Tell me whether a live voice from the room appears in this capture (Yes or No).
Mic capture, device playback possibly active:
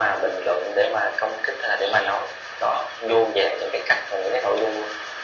No